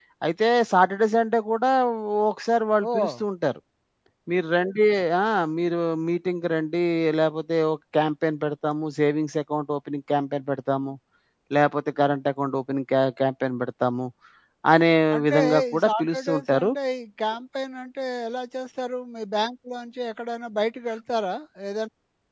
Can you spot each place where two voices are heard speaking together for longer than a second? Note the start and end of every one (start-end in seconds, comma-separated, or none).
15.3-16.7